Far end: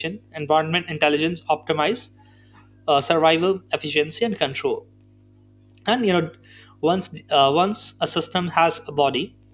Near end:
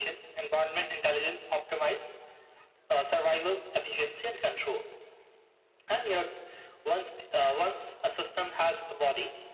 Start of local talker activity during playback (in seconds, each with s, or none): none